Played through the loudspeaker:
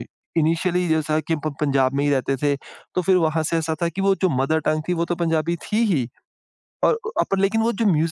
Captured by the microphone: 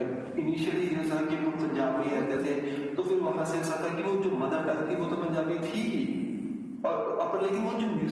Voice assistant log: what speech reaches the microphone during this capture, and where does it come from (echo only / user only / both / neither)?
both